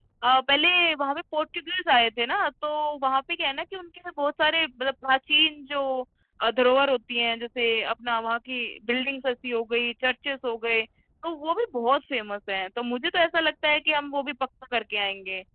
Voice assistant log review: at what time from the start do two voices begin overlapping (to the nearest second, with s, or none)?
none